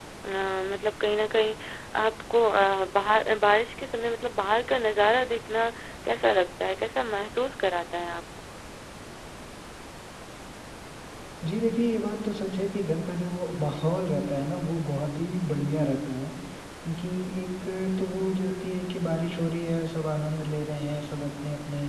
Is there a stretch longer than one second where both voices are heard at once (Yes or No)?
No